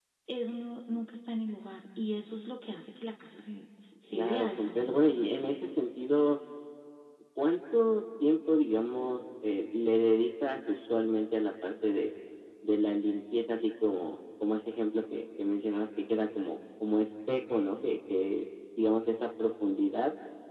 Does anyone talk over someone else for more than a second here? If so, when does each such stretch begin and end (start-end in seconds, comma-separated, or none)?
4.1-5.5